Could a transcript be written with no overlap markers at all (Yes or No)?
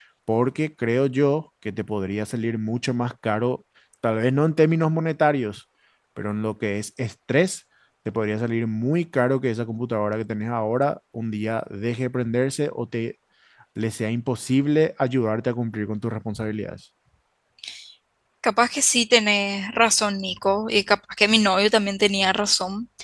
Yes